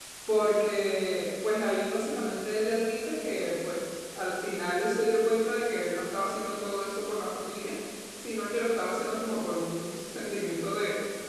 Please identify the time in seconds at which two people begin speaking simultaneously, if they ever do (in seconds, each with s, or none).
none